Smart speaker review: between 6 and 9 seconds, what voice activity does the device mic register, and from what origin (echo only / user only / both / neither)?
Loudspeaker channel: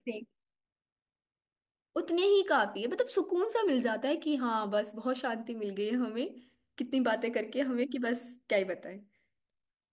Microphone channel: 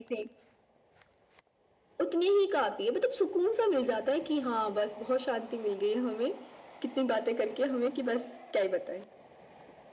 echo only